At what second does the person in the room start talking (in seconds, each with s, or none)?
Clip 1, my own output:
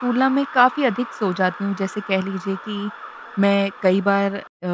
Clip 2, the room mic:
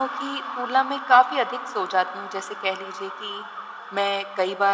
none